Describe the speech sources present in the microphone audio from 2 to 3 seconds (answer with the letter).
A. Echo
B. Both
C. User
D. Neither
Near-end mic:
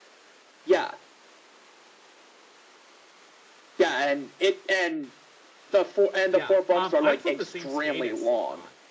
D